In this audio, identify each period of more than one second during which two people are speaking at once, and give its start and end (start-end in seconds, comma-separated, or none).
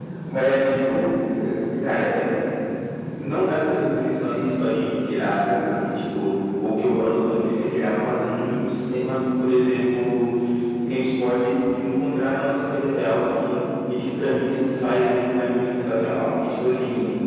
none